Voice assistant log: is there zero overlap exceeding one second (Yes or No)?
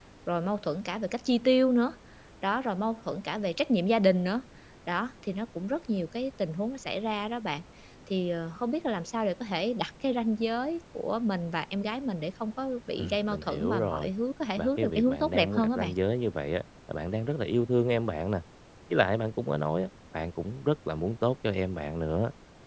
No